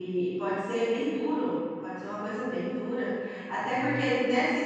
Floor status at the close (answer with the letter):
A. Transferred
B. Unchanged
B